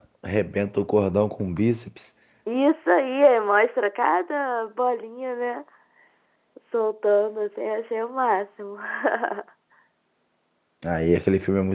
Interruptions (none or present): none